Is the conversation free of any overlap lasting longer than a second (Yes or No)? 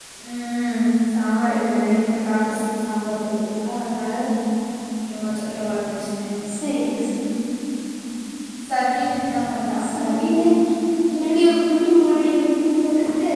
Yes